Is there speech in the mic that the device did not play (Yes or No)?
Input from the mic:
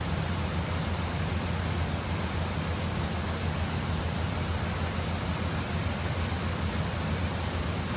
No